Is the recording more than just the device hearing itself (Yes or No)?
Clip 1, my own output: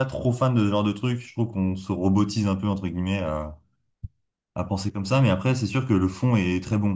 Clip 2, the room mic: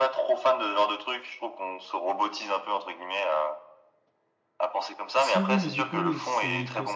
Yes